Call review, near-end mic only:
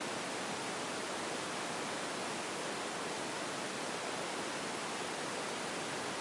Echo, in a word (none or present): none